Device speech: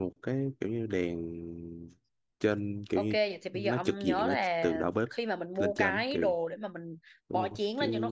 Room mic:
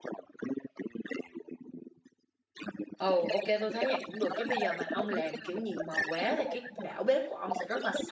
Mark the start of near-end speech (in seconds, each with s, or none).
3.0 s